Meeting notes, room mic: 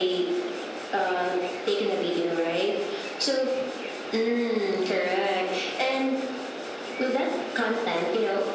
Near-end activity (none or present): none